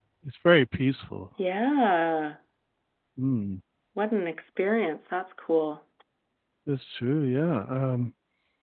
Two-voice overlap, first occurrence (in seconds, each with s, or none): none